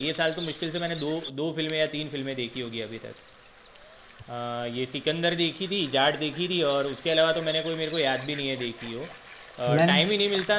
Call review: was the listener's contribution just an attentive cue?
Yes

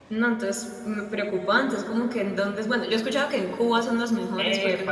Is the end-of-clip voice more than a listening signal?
Yes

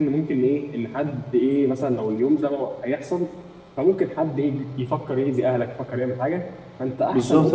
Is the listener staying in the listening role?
No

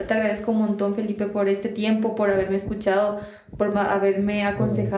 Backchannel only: Yes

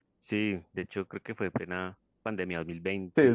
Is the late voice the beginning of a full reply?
Yes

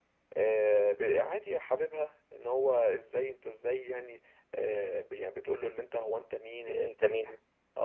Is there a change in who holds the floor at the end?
No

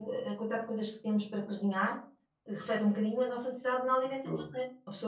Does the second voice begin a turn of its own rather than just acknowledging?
No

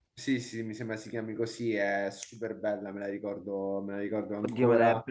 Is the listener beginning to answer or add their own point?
Yes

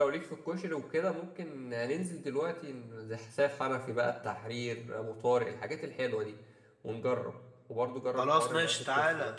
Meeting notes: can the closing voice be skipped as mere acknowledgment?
No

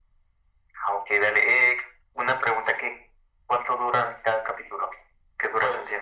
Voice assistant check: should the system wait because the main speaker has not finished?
No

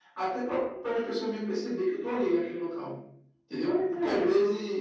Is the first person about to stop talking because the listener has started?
No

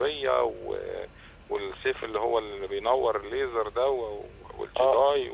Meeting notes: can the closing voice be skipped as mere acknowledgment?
No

